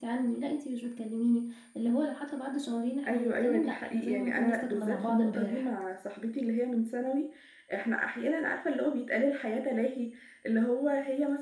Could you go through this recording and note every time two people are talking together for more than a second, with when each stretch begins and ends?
3.1-5.7

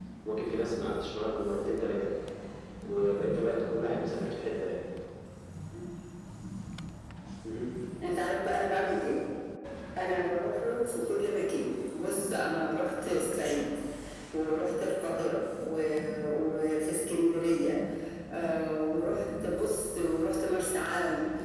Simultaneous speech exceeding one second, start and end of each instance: none

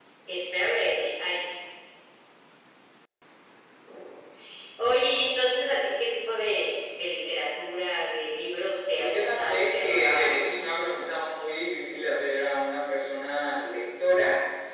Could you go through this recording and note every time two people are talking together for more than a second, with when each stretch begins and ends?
8.9-10.4

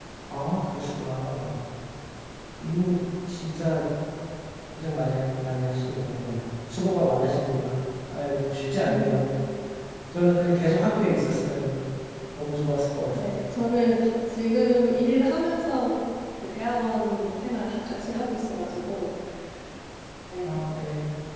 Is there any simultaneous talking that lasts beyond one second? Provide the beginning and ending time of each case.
none

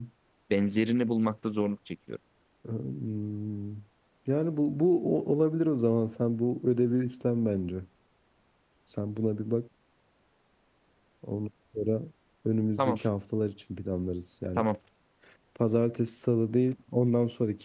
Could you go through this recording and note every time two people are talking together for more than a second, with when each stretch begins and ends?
none

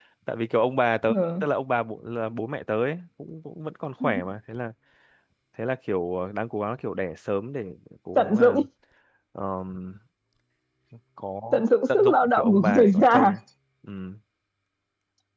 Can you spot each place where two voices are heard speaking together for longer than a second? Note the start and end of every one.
11.5-13.3

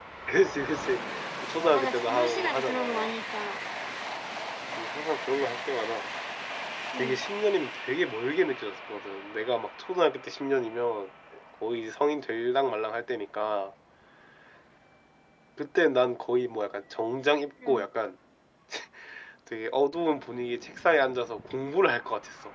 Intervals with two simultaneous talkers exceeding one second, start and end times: 1.7-3.1

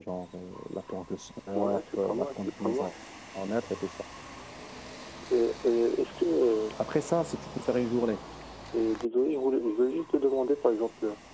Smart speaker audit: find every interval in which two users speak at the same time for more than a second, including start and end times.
1.5-2.9

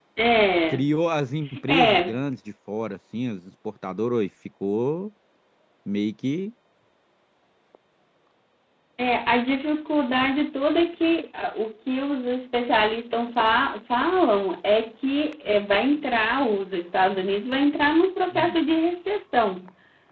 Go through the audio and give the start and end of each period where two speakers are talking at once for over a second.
none

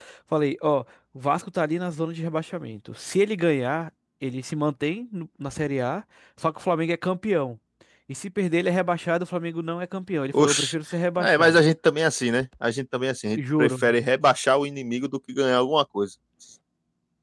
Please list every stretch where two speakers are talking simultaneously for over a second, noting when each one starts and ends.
none

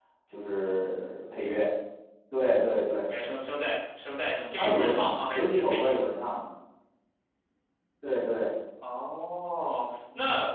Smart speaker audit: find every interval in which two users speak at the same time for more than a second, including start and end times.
4.6-6.0

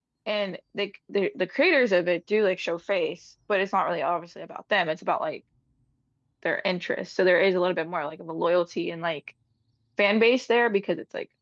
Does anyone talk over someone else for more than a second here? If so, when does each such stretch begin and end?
none

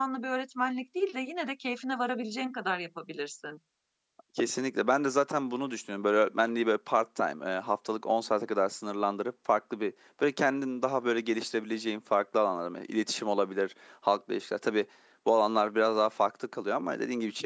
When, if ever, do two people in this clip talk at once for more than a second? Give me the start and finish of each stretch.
none

